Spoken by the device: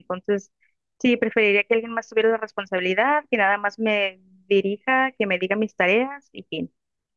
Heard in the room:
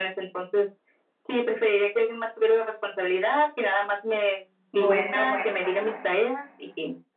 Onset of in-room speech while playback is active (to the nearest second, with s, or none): 5 s